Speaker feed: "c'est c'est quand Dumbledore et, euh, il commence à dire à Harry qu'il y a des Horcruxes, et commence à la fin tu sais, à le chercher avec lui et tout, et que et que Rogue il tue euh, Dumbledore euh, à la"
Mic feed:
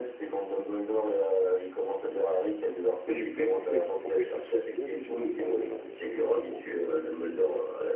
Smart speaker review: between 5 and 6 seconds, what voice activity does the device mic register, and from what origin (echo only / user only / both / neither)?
both